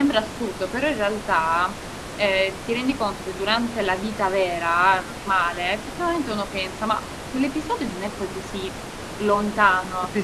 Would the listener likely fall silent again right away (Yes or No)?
No